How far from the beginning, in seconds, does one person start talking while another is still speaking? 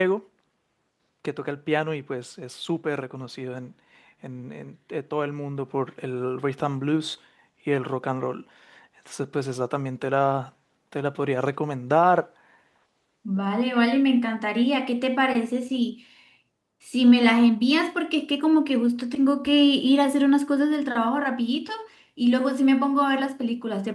none

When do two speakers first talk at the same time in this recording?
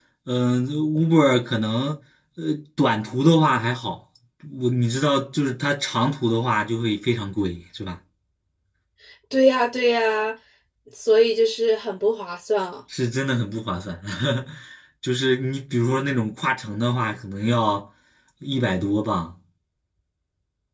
none

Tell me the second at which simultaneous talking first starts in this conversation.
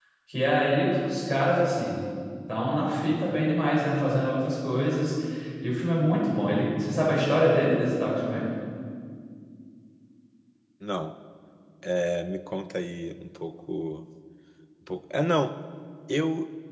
none

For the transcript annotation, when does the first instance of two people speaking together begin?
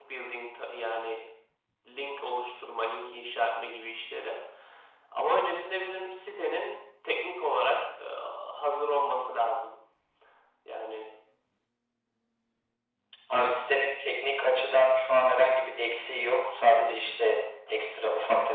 none

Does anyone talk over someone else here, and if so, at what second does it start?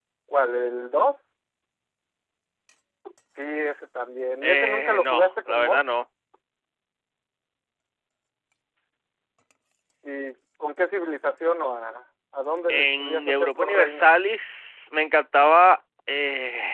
4.4 s

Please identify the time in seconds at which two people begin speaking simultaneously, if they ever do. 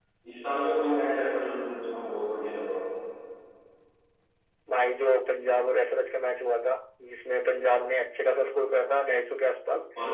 none

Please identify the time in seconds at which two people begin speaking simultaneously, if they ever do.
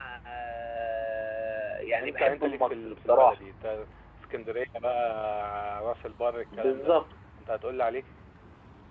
2.0 s

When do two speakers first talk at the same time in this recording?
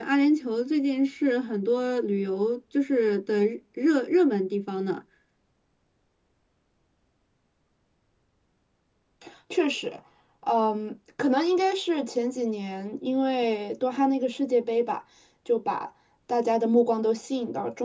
none

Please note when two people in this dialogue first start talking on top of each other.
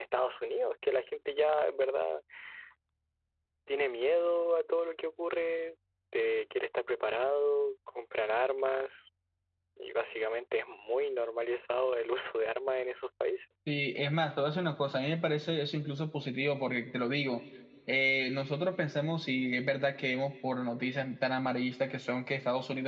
none

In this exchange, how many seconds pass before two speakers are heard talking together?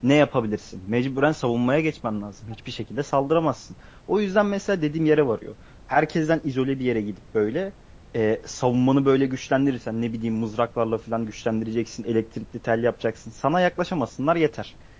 none

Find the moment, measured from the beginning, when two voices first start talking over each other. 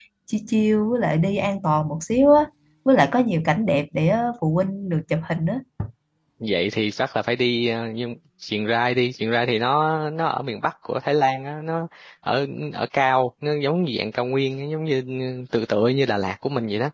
none

